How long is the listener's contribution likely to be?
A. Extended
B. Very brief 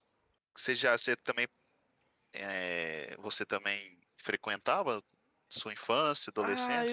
A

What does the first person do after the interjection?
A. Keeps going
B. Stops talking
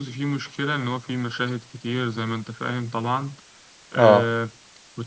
A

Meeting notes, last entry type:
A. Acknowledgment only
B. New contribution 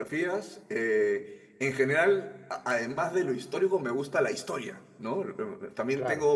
A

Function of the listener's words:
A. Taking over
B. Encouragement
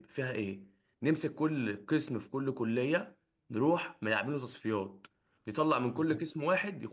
B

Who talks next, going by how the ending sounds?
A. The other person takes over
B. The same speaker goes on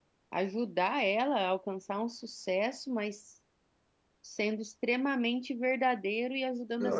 A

